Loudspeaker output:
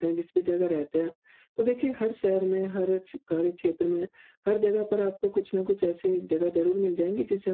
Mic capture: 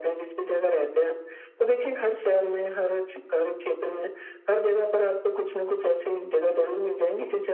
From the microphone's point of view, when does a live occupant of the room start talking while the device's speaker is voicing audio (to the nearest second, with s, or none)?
none